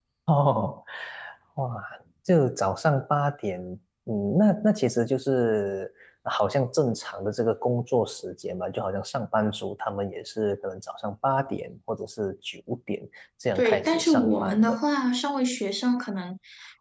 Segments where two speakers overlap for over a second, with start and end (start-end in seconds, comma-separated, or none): 13.6-14.8